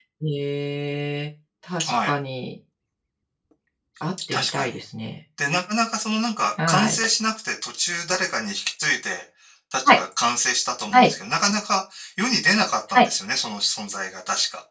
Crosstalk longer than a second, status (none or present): none